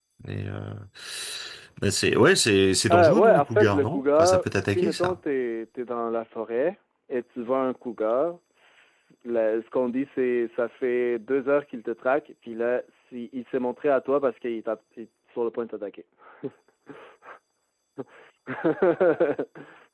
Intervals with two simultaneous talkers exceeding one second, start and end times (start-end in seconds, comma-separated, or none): 2.9-5.2